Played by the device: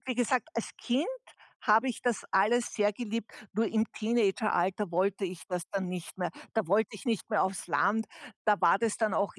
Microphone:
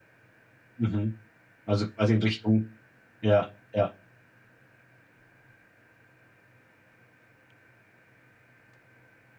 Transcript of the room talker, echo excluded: mhm. Also quasi in Richtung ja, ja,

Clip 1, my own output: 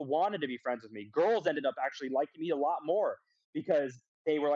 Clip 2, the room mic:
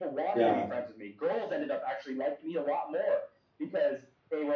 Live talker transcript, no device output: Yeah,

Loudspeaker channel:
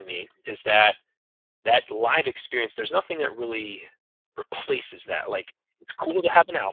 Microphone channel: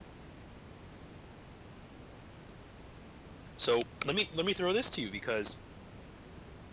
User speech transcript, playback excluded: So, let me let me throw this to you because

